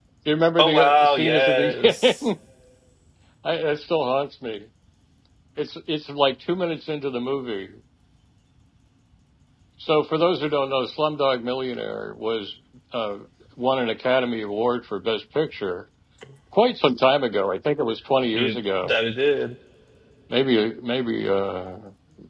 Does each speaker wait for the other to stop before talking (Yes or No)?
No